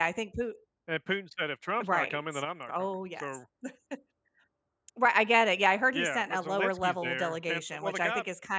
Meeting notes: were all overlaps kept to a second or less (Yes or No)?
No